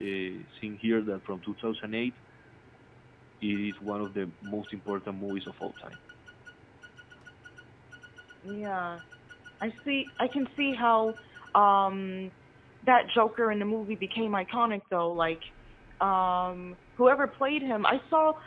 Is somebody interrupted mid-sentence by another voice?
No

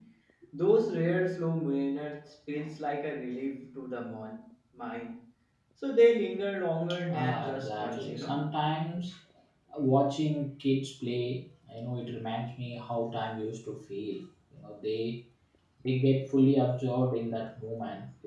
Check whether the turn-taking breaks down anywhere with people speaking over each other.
Yes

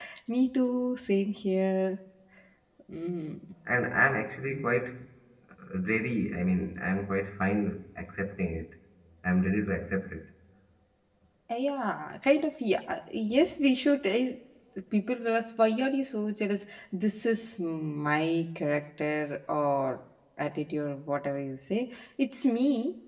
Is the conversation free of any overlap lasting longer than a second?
Yes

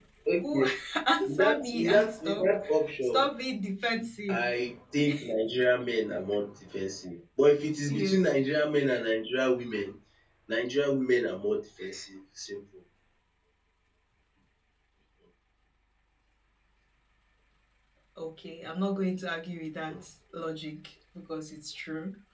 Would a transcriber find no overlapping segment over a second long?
No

